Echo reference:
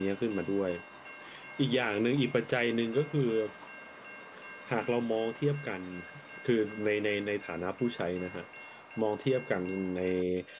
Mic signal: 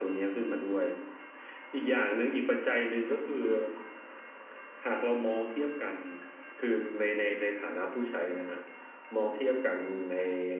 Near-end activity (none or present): none